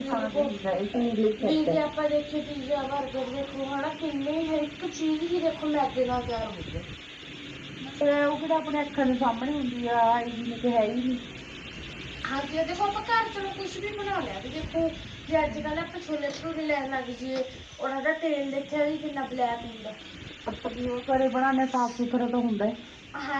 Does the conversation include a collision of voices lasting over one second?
No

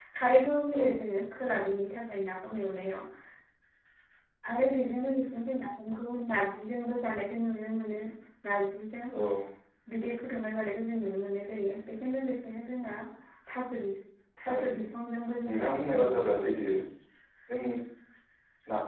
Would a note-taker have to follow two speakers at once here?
Yes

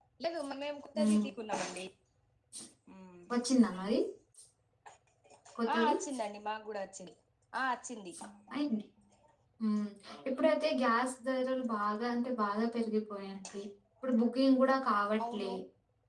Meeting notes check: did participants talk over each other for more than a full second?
No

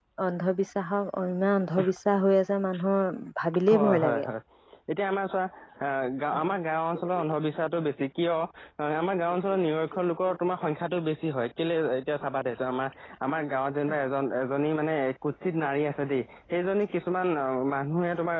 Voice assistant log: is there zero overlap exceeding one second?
Yes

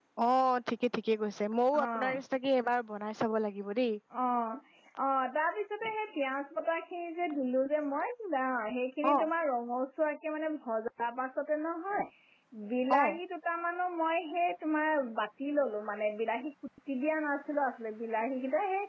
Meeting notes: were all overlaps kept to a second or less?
Yes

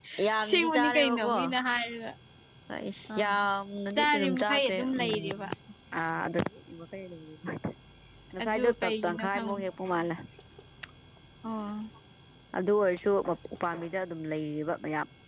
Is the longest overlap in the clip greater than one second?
Yes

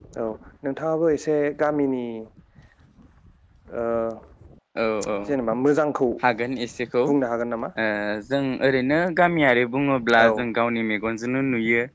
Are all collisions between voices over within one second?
Yes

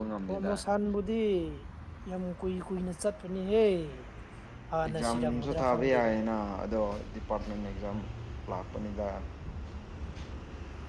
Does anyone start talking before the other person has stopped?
Yes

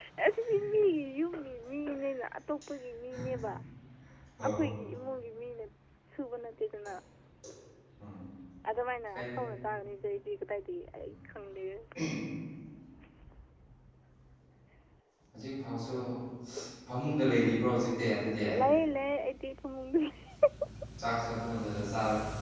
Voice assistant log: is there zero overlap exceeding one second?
Yes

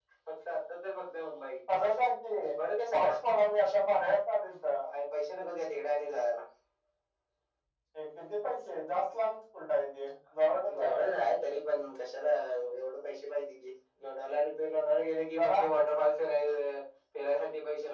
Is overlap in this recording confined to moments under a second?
Yes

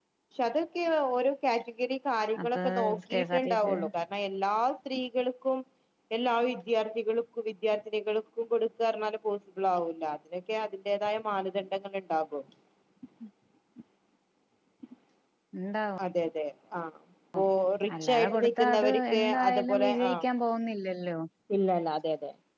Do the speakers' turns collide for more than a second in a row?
Yes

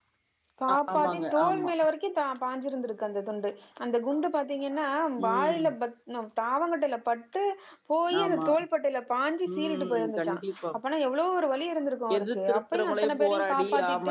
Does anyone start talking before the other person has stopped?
Yes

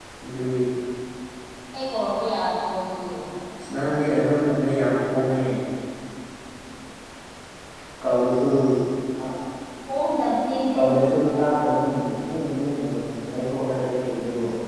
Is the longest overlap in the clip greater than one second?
No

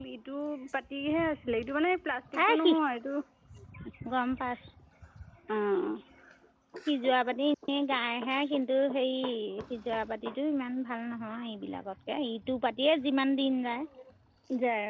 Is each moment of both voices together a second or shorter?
Yes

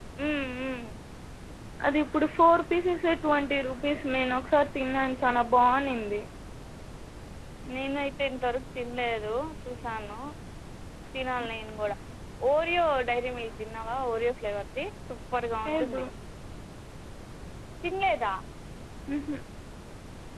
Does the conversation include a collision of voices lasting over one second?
No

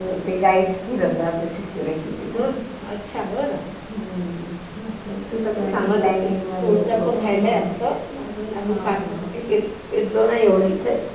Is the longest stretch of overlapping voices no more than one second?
No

